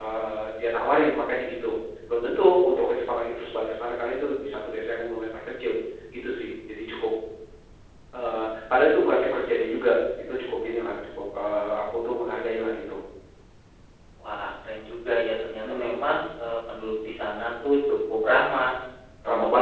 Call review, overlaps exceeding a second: none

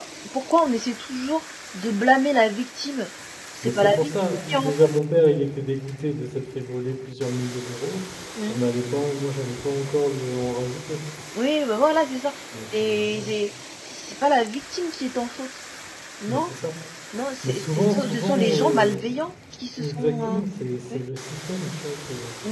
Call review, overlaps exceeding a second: present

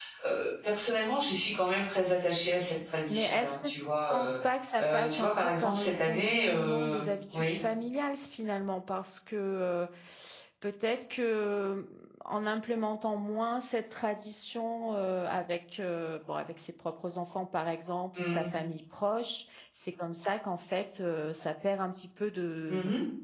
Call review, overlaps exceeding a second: present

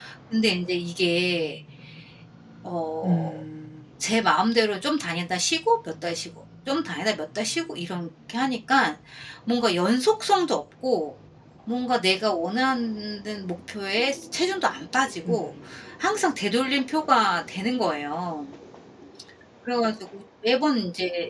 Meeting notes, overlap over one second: none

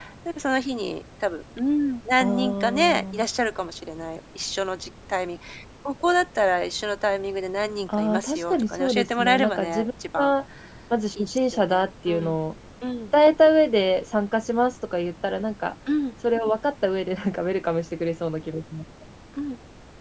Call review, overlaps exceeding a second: present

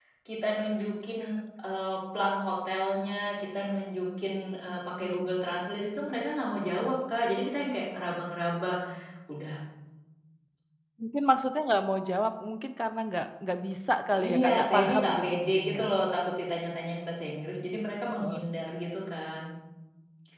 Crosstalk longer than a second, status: present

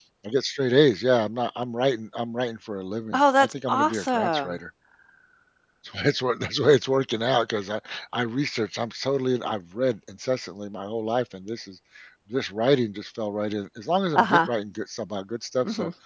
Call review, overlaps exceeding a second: present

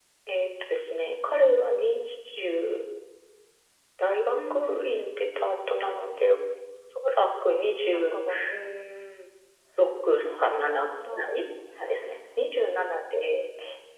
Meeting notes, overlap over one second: present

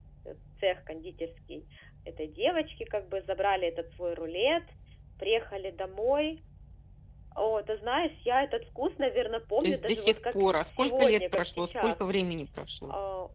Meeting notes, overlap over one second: present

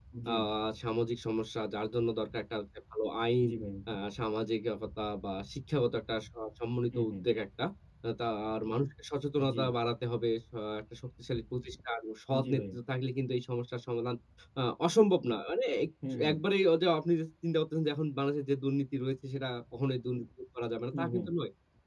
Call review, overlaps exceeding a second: none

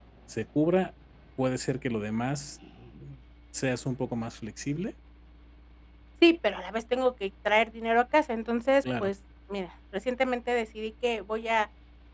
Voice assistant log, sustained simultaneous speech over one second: none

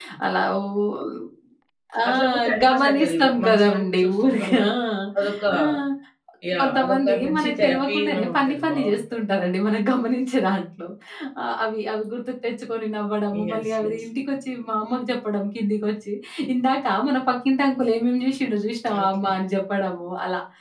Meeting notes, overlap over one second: present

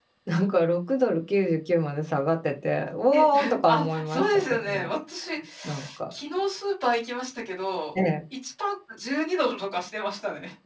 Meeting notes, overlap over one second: present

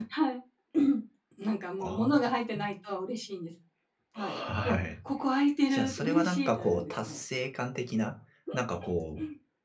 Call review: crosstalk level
present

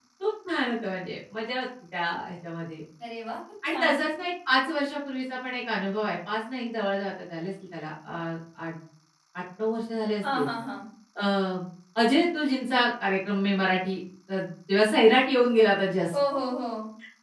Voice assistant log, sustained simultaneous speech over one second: none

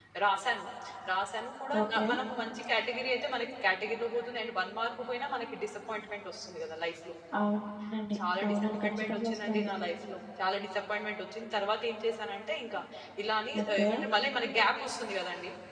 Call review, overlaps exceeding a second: present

